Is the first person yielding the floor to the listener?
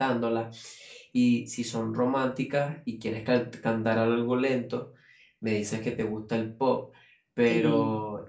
No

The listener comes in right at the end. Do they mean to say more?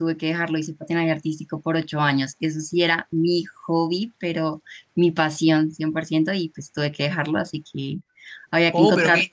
Yes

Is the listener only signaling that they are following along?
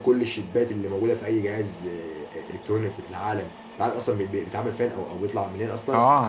No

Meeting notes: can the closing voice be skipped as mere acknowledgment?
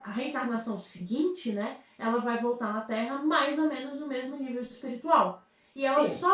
Yes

